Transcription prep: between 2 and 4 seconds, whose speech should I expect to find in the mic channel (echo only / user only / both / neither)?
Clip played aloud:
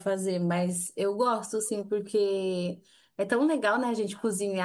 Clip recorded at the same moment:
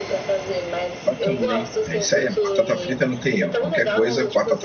both